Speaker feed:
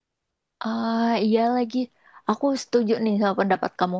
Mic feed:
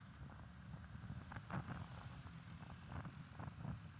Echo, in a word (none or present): none